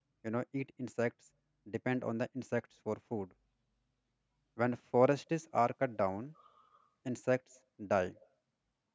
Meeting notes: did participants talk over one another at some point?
No

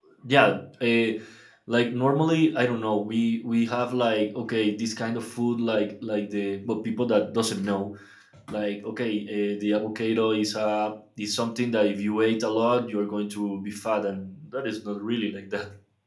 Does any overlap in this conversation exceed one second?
No

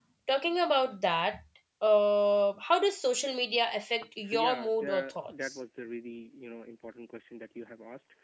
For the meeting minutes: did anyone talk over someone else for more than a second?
Yes, from 4.0 s

